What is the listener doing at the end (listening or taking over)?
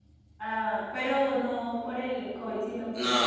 taking over